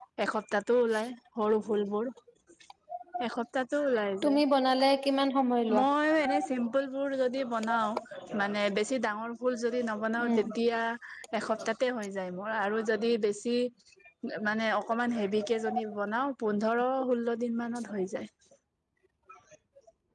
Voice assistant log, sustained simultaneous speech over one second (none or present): none